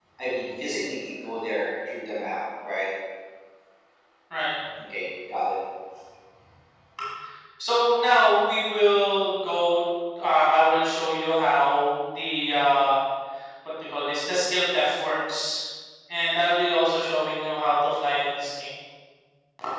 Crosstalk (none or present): none